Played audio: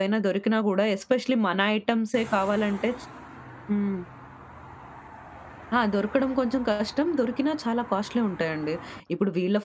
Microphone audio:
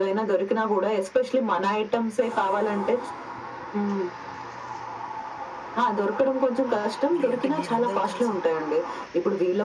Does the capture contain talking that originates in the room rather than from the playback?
Yes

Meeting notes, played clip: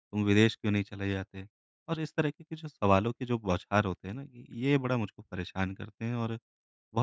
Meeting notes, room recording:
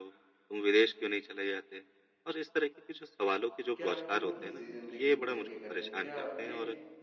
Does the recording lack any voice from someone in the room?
No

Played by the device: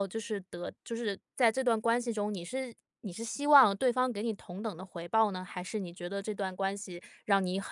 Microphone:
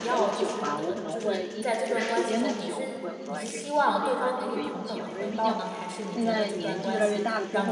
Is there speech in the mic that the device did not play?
Yes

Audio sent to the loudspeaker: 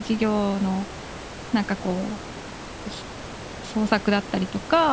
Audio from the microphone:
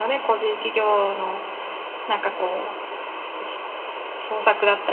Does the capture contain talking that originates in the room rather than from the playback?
No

